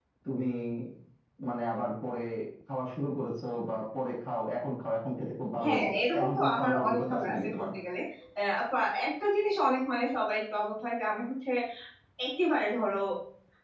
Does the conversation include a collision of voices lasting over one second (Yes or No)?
Yes